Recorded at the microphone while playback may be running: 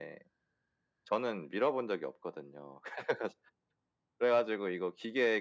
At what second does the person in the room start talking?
none

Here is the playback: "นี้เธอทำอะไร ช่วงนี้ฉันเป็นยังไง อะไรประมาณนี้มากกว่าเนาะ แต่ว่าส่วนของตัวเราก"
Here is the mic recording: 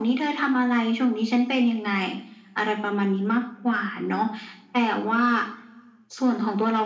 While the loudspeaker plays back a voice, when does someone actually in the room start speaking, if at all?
none

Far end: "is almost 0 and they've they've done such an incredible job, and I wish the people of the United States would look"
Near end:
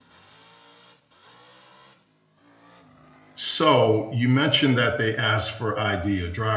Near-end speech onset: 3.4 s

